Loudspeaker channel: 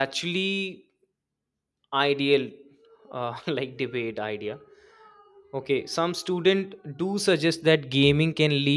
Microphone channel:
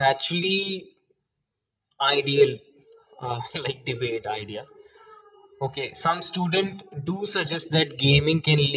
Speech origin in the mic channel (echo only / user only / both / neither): echo only